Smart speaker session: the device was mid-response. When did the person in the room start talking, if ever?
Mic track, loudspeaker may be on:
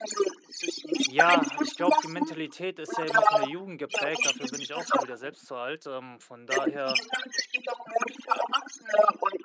1.1 s

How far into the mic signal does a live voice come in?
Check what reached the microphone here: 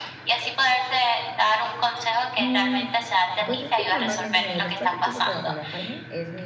2.3 s

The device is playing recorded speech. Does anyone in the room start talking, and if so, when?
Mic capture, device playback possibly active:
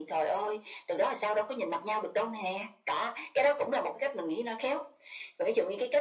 none

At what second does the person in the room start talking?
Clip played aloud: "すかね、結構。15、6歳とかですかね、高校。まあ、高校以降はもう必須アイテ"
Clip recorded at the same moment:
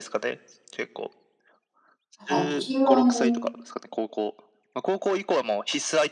2.3 s

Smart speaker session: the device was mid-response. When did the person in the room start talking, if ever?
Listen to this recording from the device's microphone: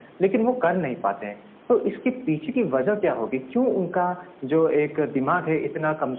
none

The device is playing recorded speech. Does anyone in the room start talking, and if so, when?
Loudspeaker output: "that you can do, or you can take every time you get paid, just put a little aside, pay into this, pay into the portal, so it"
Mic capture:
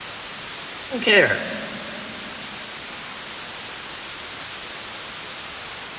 0.9 s

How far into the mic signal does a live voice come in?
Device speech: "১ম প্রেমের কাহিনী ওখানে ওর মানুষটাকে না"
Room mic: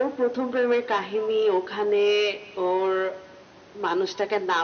none

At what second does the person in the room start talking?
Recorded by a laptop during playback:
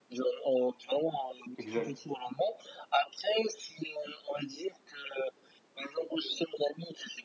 1.6 s

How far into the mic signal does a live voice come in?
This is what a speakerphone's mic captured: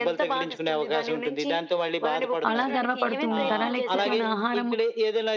2.5 s

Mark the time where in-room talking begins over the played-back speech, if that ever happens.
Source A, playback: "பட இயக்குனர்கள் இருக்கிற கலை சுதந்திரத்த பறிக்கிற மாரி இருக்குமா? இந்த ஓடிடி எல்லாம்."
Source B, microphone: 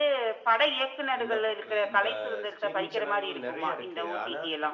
1.2 s

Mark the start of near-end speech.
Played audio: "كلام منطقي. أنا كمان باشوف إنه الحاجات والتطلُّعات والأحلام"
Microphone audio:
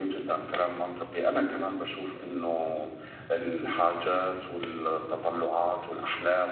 none

